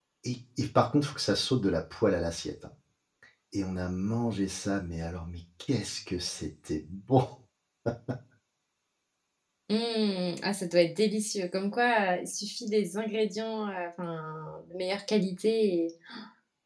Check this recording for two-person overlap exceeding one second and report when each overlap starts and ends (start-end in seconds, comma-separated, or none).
none